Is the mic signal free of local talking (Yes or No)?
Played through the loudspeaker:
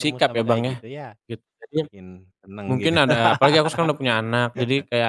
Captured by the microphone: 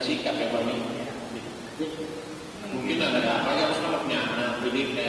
Yes